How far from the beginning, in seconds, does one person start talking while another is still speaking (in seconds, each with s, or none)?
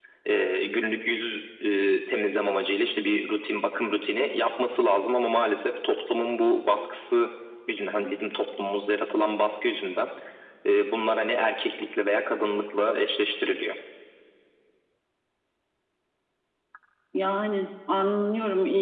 none